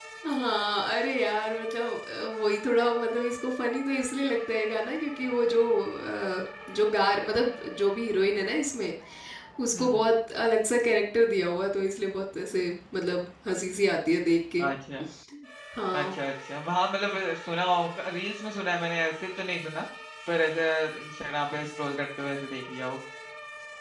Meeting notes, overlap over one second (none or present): none